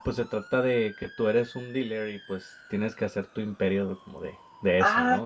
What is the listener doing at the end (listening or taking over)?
taking over